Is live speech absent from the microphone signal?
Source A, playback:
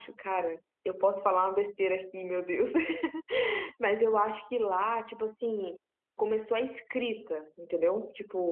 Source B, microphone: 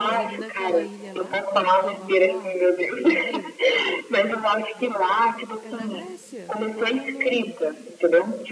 No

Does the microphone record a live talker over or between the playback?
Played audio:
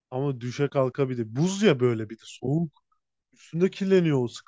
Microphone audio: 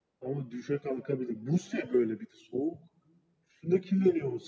No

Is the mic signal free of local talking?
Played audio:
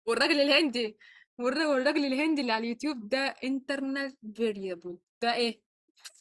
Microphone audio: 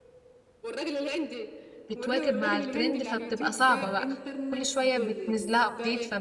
No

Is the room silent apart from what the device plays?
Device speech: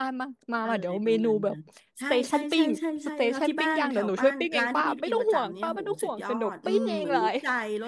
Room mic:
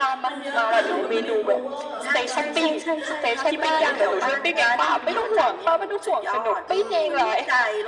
No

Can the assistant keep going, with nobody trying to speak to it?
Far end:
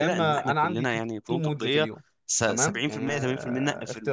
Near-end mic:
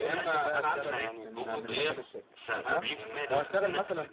No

